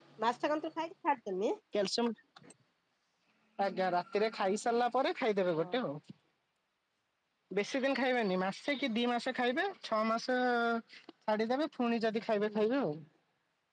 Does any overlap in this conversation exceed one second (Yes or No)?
No